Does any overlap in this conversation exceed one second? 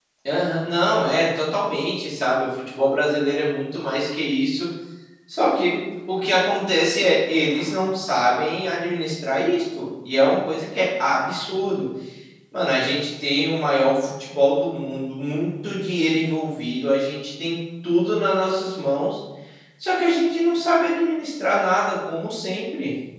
No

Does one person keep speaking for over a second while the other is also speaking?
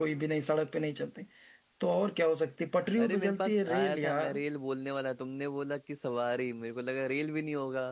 Yes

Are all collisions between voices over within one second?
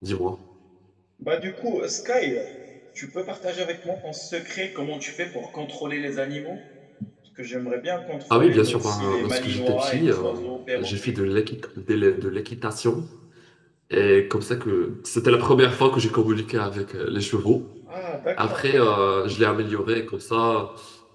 No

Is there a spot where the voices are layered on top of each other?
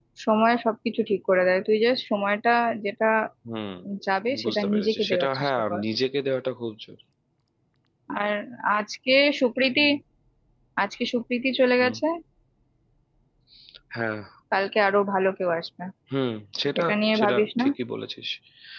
Yes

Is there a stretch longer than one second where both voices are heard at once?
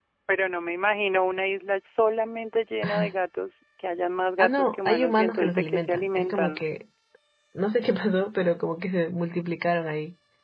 Yes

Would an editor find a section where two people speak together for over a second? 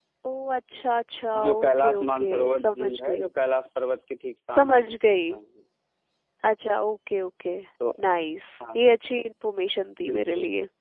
Yes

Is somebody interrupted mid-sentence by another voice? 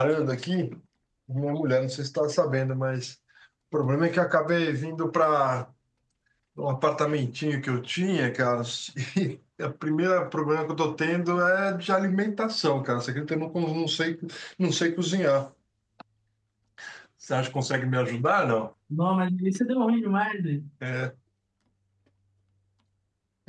No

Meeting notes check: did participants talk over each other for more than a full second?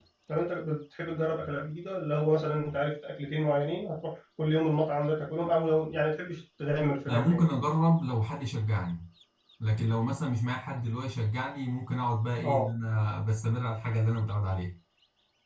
No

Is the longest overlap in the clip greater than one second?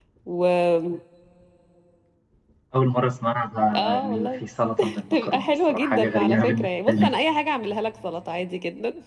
Yes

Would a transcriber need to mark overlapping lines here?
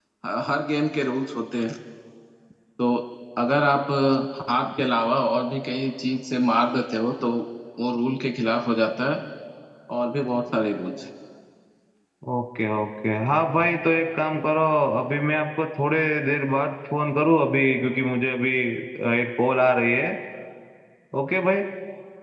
No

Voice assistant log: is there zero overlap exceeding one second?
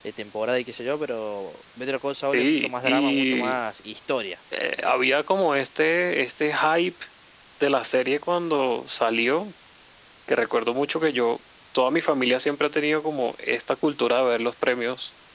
No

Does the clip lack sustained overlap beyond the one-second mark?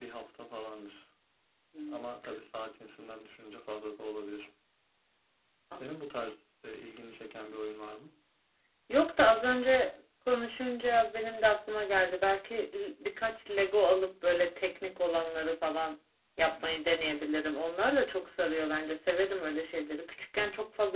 Yes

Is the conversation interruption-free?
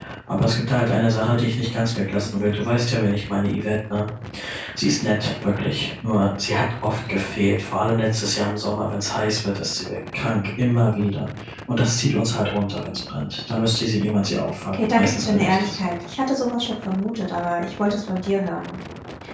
No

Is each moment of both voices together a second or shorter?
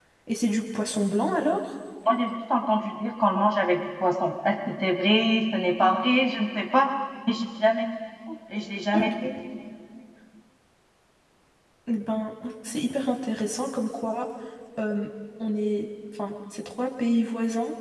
Yes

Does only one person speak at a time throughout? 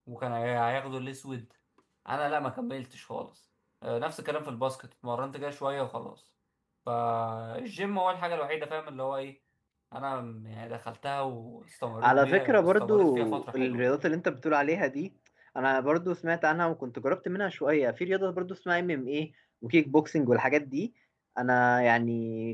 No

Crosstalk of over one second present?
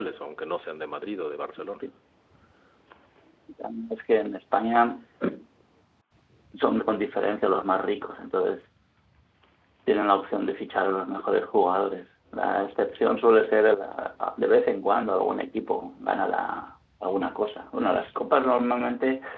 No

